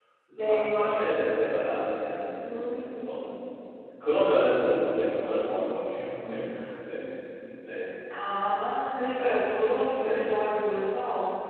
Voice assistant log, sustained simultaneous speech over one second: none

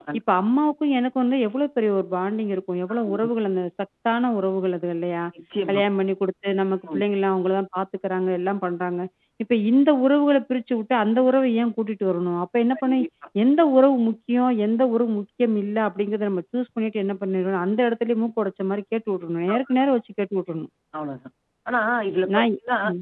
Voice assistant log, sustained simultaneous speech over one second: none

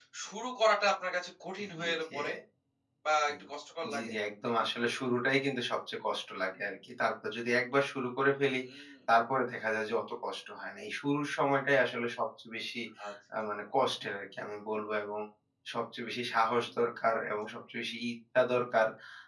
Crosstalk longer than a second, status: none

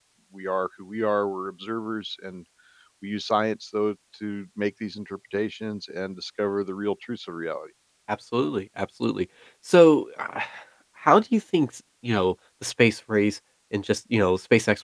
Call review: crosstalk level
none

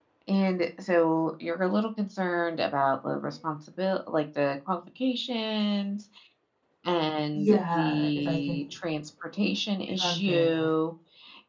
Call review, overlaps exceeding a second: present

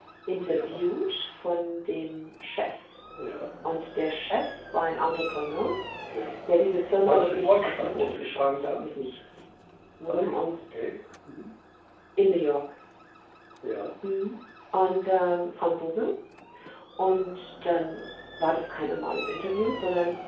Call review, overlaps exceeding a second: present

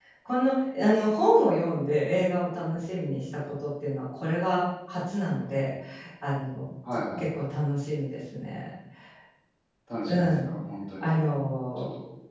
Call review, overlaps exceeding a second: none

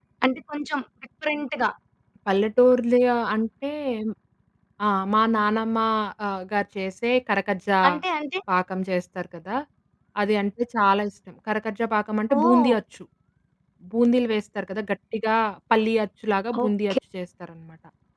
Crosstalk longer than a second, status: none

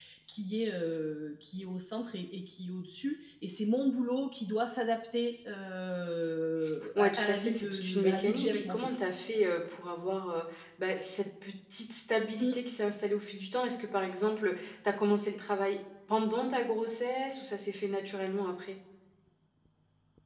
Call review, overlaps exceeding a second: present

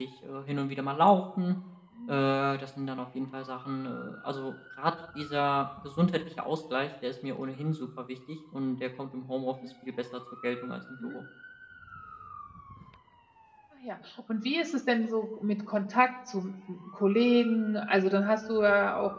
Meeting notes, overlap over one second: none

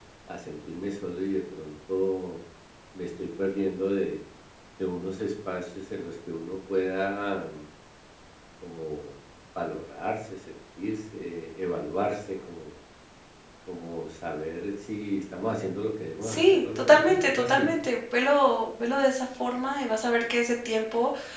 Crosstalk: present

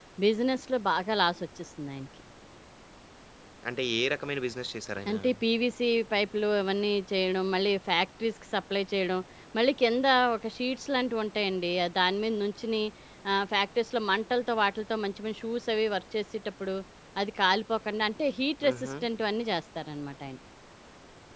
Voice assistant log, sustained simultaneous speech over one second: none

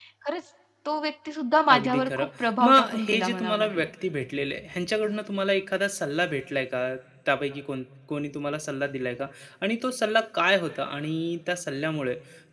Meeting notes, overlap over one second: present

